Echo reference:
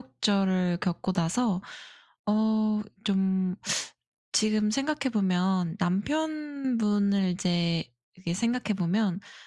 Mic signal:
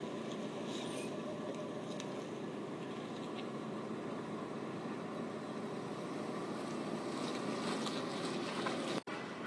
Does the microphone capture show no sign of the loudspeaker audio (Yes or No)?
Yes